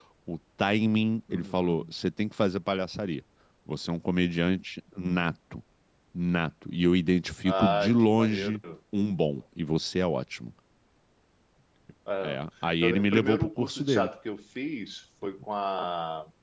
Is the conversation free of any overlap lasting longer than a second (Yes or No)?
No